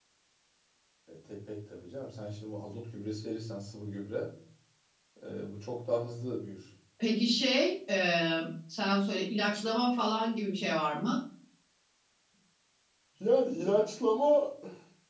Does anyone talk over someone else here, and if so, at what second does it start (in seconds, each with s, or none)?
none